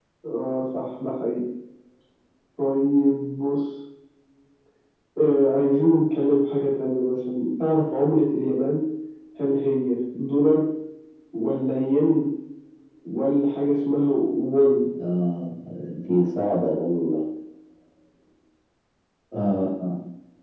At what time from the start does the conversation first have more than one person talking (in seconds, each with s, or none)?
none